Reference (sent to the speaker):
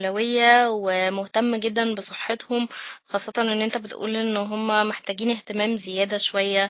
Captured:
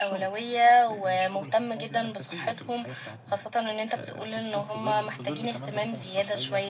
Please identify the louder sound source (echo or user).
echo